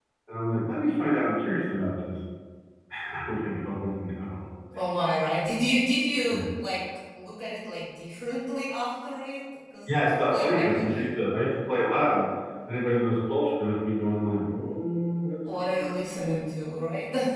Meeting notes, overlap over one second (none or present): present